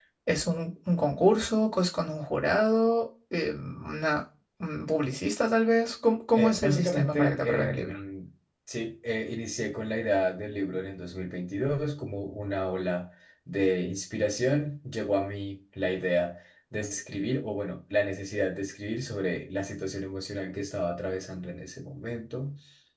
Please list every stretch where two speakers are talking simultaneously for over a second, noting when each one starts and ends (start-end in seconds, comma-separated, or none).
6.3-8.0